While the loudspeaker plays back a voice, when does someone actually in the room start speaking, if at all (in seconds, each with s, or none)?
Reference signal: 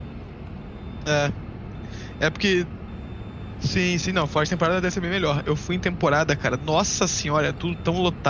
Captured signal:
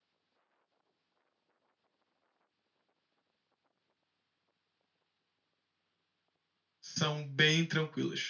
6.8 s